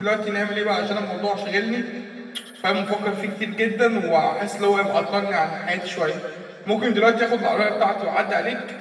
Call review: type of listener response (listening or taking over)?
listening